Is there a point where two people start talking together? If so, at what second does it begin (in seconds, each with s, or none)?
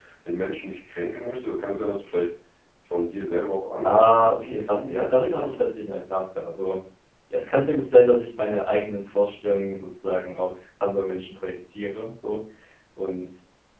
3.8 s